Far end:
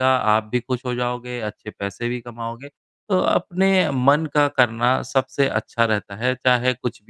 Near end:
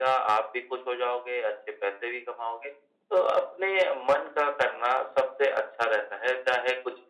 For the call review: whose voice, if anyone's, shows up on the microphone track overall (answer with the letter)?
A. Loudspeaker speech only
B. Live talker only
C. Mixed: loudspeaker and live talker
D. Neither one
A